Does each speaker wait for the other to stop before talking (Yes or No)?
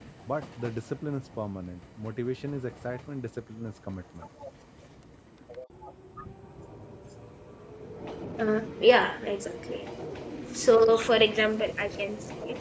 Yes